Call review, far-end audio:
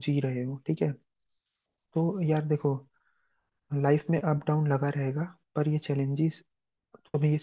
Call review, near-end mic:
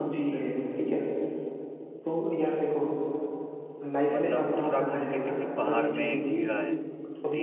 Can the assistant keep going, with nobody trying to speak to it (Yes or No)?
No